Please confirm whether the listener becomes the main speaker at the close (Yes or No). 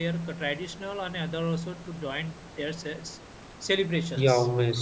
Yes